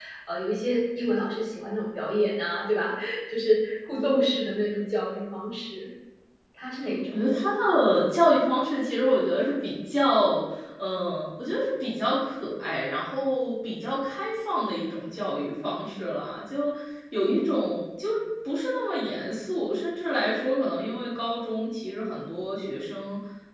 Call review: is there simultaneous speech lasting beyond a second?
No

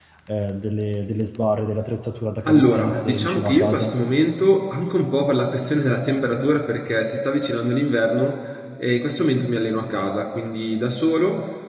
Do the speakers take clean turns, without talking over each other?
No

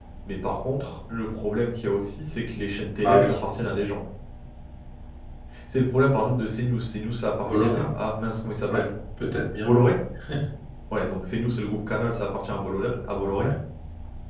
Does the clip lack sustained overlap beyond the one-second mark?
Yes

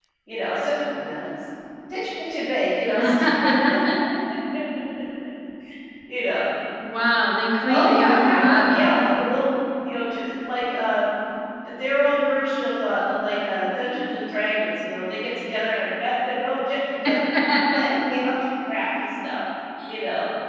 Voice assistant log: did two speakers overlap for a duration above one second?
Yes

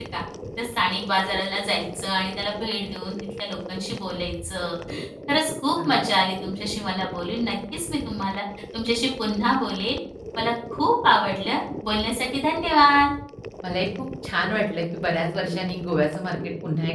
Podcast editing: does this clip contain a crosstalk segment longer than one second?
No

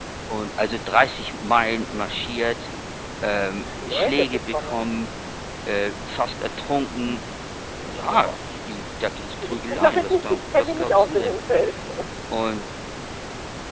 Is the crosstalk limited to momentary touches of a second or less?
No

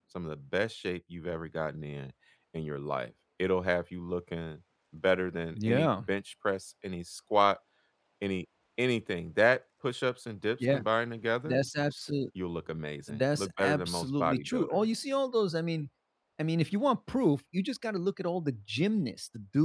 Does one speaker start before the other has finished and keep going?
Yes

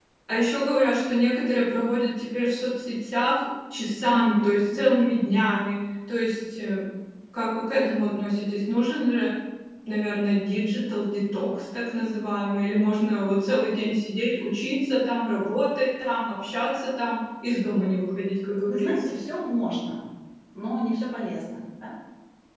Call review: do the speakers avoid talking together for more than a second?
Yes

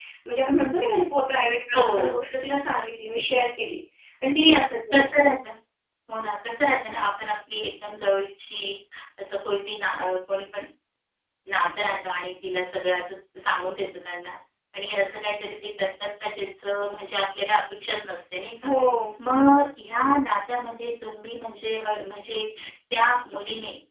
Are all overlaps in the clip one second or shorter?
Yes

